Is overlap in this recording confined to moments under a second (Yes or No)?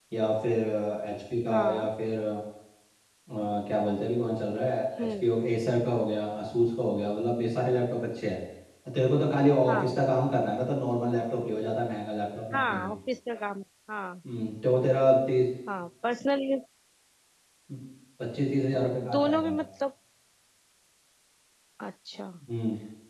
Yes